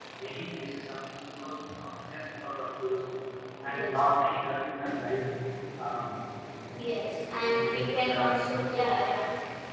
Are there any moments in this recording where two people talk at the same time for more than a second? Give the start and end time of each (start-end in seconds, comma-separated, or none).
7.4-8.8